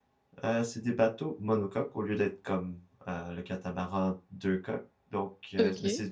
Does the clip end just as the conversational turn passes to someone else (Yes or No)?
No